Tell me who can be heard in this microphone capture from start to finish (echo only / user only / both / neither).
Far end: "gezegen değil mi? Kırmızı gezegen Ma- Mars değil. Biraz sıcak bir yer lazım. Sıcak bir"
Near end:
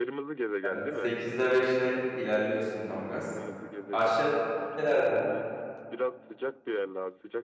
both